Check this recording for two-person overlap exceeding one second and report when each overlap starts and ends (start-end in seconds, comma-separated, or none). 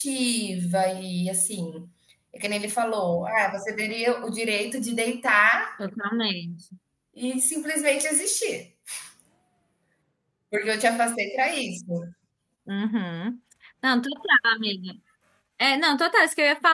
none